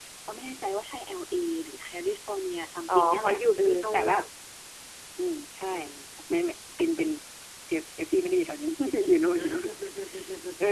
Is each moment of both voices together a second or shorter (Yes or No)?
No